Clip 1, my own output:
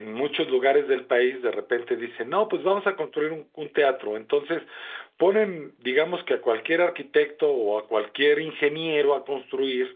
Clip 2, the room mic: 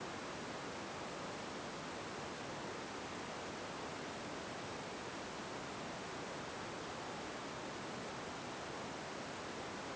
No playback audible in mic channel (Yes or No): Yes